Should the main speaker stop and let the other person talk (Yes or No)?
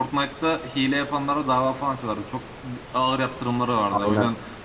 No